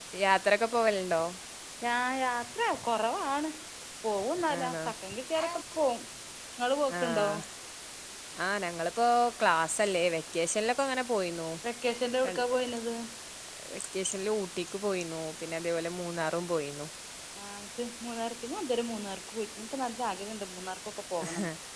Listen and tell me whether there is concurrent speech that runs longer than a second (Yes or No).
No